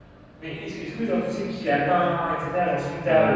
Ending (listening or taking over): taking over